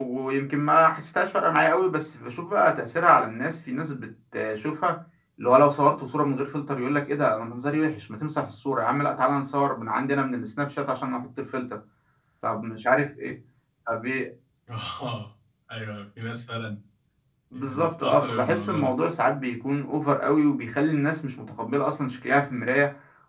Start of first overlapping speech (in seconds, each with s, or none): 17.5 s